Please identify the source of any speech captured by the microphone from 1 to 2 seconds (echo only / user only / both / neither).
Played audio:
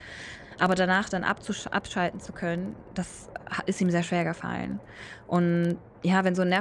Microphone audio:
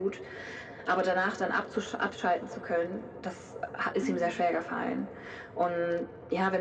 echo only